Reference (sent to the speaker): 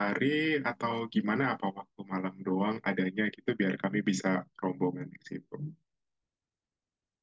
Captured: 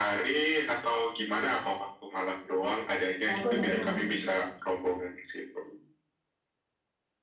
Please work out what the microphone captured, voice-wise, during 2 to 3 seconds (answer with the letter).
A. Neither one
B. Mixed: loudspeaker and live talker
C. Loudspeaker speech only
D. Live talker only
C